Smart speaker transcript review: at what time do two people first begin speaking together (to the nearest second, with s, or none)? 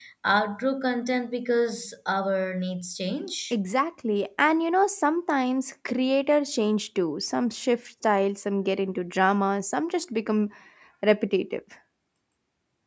none